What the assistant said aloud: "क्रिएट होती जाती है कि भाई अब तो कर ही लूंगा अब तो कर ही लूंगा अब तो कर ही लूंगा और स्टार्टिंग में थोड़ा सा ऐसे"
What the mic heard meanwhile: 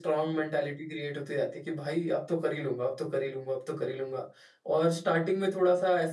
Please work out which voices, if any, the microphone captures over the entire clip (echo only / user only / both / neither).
echo only